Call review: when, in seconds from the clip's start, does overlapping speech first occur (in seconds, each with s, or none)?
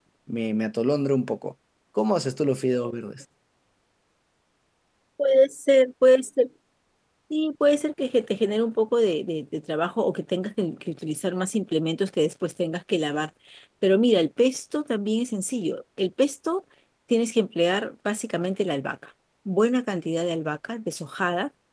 none